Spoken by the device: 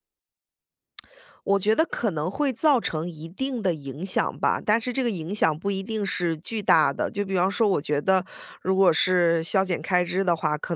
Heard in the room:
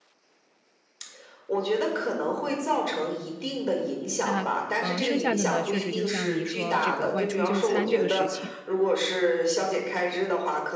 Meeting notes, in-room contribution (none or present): present